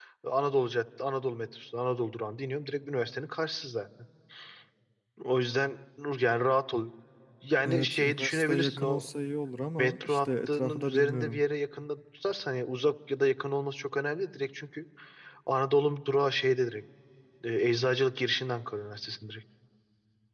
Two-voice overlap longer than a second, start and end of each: 7.7-9.1, 9.8-11.4

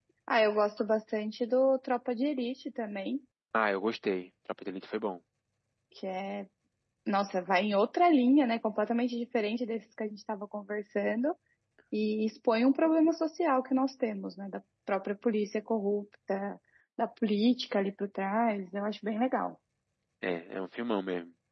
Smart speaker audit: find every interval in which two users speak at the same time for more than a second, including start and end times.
none

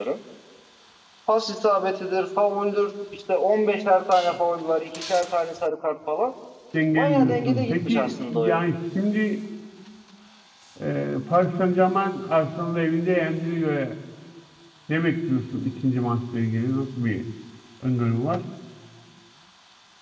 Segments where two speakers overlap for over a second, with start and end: 7.0-8.6

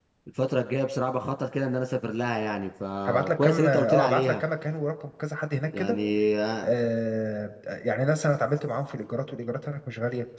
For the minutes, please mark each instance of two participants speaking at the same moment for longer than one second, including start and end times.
3.1-4.4

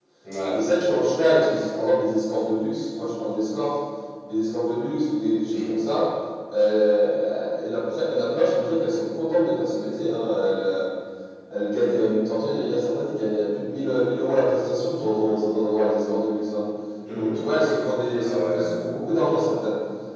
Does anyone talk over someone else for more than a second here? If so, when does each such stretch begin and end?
none

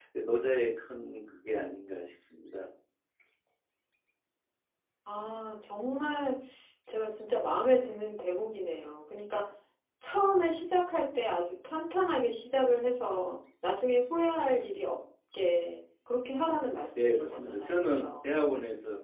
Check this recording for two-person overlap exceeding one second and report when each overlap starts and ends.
16.9-18.4

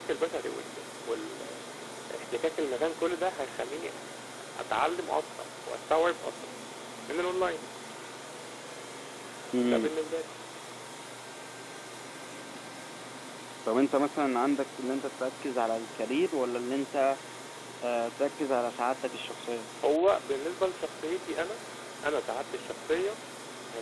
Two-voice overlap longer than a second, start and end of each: none

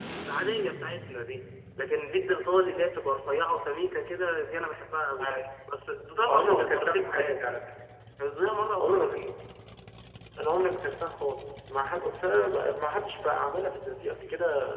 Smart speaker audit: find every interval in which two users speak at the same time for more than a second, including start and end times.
6.3-7.5

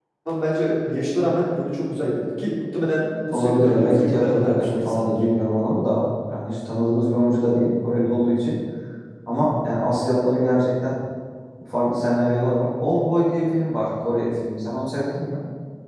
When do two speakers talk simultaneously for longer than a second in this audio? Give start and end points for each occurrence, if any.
3.3-5.1

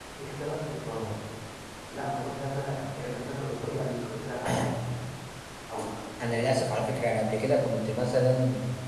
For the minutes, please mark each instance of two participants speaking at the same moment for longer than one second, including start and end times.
none

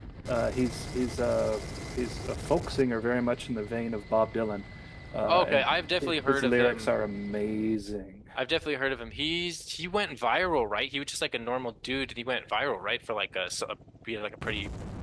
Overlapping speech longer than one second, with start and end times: 5.3-6.9

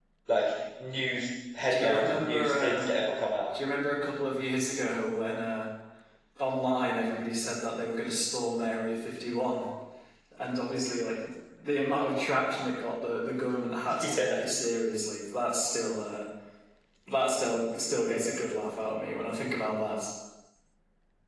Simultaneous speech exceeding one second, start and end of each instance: 1.7-3.0

